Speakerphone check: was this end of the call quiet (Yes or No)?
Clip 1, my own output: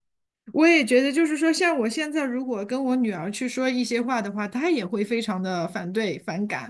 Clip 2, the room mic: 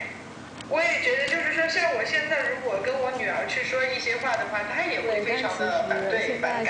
No